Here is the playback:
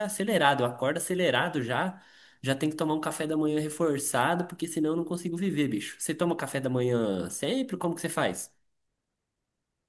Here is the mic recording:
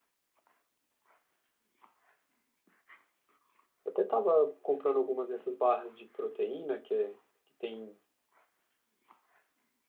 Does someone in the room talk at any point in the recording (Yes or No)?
Yes